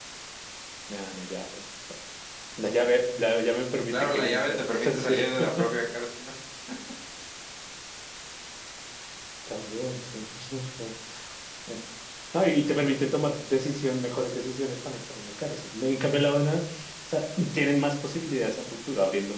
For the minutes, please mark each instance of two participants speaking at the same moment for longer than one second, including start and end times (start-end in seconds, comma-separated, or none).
3.9-5.2